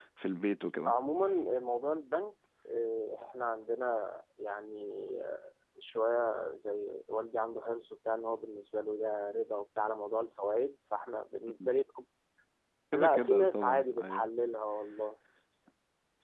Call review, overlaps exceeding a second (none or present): present